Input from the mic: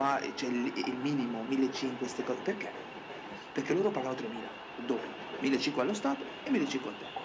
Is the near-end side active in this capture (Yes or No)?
No